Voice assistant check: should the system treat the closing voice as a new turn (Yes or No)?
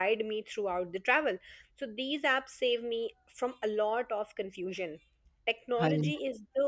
No